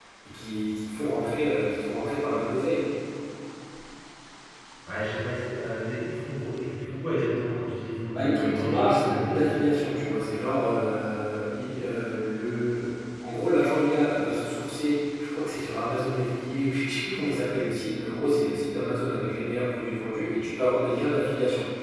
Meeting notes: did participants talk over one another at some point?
Yes, from 8.1 s

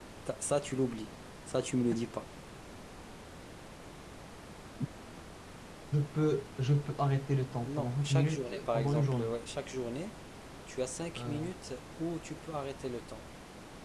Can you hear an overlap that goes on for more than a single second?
Yes, from 7.6 s

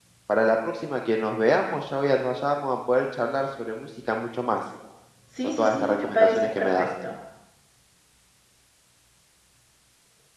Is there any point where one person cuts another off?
Yes, from 5.4 s

